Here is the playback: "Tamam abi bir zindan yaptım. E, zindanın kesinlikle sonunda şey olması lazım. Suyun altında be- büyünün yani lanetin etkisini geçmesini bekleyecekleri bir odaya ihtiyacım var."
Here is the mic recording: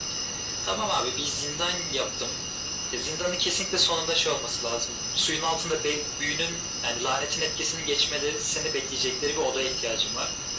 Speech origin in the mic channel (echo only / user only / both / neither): echo only